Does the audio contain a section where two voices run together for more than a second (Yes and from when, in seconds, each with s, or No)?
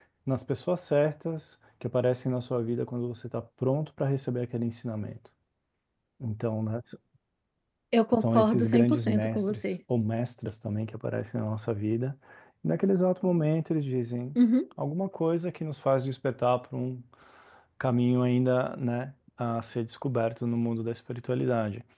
Yes, from 8.2 s